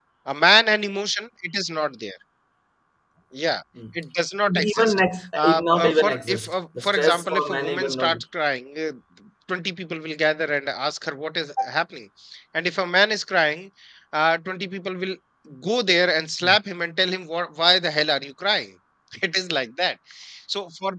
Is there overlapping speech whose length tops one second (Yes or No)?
Yes